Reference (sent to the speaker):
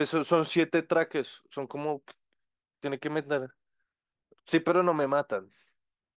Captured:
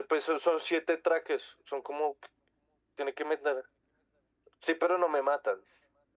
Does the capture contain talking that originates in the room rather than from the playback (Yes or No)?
No